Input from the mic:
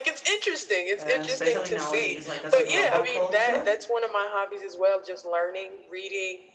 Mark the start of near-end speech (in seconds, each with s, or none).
1.0 s